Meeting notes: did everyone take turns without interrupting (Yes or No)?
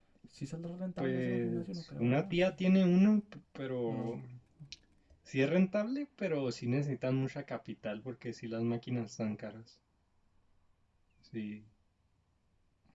No